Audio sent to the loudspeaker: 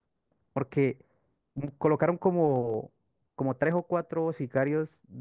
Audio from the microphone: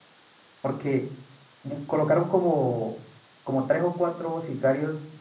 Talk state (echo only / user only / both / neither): echo only